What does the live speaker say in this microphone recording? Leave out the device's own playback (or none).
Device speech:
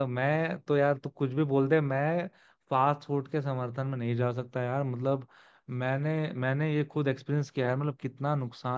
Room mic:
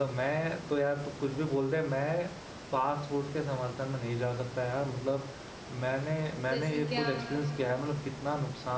जैसे क्या